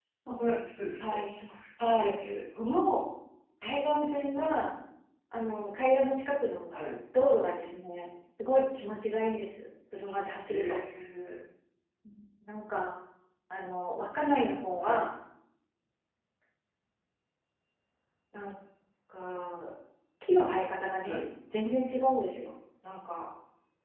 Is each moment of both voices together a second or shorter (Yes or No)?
Yes